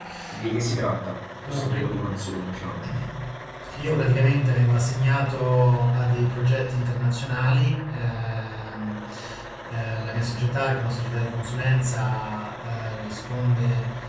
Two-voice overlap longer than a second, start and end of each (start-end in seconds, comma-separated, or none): none